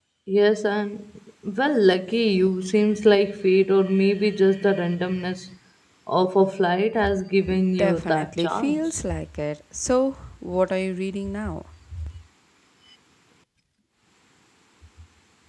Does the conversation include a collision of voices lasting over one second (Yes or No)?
Yes